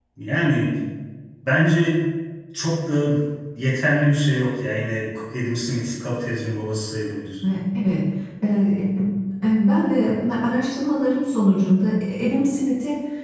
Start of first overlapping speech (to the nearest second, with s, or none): none